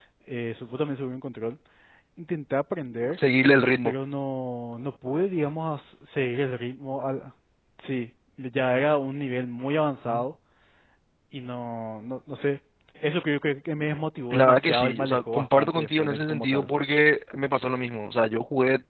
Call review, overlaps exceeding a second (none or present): present